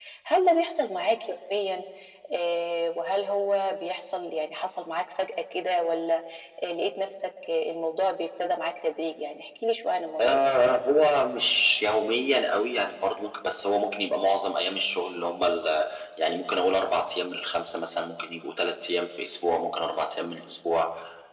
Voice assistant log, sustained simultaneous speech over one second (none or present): none